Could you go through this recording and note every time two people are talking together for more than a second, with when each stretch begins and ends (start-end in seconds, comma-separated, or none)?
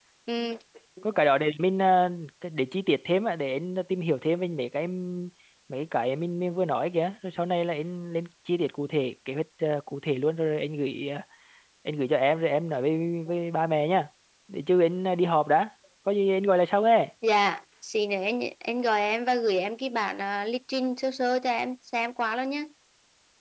none